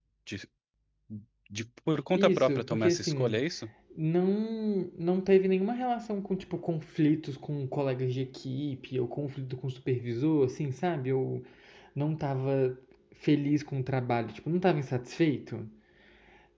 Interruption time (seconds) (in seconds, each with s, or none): 2.1 s